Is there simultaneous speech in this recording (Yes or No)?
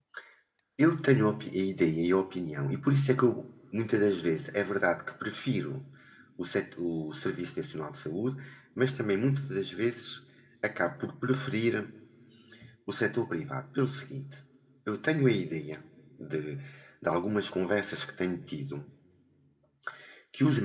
No